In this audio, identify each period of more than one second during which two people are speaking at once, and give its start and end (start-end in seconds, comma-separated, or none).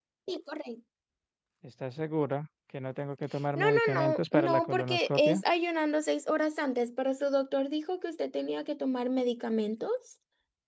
3.6-5.3